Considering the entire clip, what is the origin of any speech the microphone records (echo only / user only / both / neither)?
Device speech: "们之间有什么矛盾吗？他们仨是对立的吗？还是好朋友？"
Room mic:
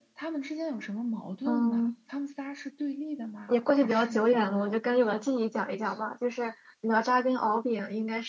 both